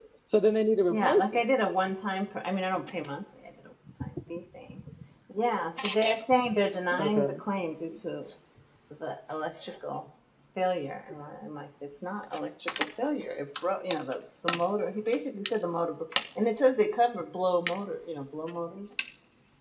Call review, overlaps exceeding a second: none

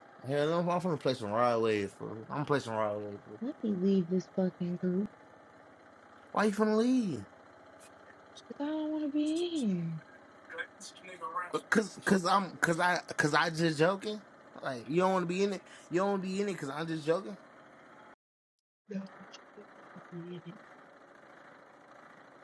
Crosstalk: none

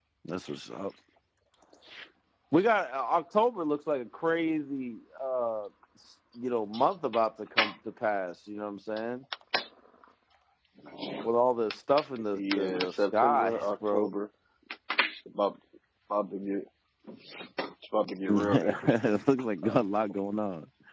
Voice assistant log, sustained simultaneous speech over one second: present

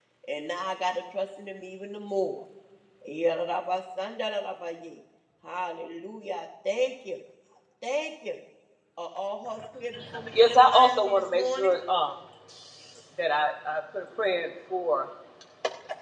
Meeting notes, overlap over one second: present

